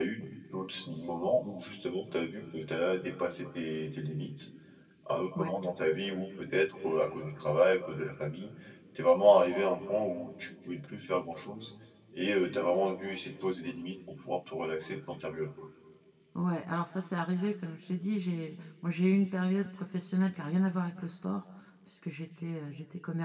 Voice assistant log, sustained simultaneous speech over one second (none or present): none